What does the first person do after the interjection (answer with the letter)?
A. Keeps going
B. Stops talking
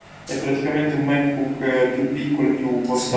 B